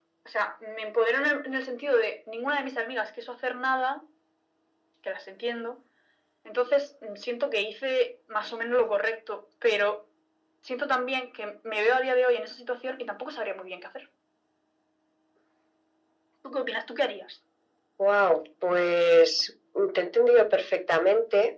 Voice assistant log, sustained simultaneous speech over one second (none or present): none